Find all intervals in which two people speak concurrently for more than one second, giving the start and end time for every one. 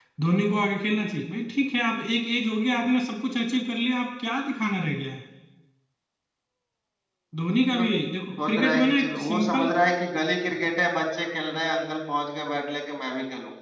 8.4-9.7

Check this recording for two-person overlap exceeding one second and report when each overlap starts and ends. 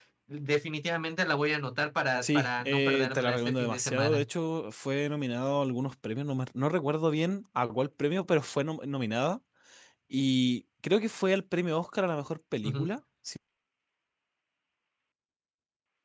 2.2-4.3

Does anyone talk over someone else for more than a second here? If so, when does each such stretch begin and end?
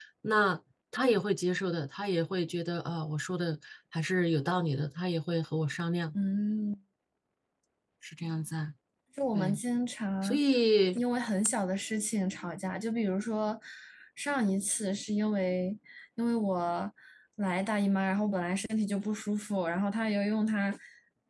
none

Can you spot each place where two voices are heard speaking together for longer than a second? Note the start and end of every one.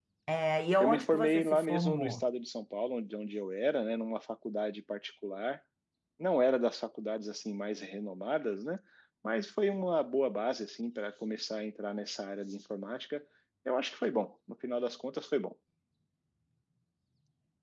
0.8-2.2

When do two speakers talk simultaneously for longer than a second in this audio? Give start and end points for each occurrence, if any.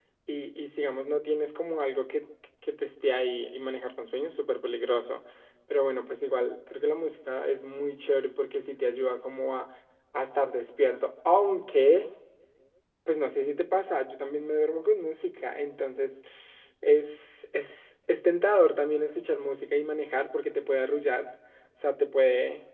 none

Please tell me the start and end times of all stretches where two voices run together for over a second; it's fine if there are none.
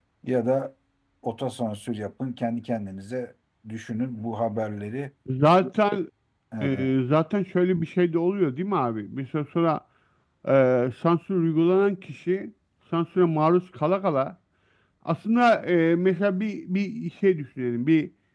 none

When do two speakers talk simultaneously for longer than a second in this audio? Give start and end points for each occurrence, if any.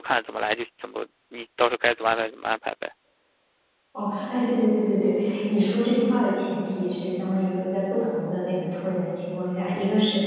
none

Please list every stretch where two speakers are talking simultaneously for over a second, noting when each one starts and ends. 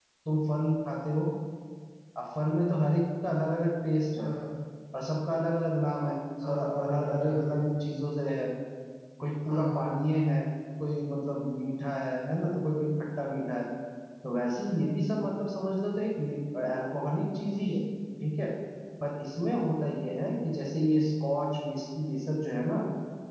6.4-7.7

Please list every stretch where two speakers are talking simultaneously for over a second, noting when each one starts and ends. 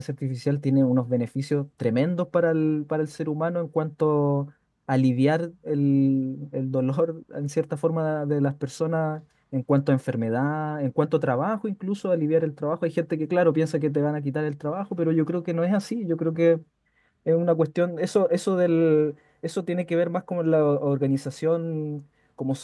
none

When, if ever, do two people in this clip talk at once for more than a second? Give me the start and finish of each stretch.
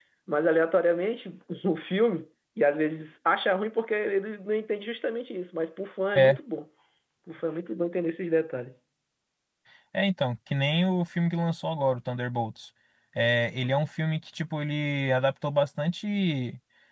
none

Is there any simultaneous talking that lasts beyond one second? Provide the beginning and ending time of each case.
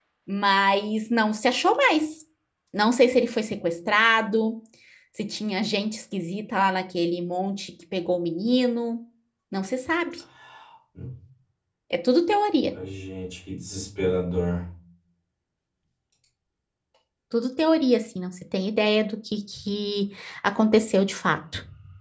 none

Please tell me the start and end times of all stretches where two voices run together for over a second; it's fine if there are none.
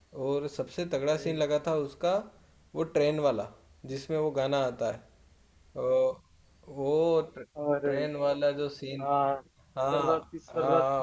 none

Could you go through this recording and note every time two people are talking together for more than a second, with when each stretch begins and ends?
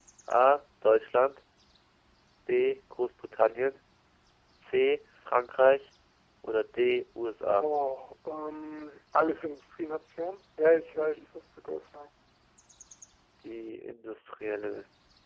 none

